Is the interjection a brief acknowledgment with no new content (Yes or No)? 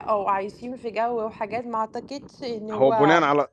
No